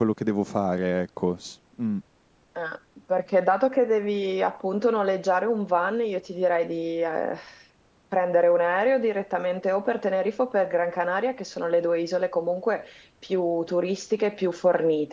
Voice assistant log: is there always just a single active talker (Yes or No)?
Yes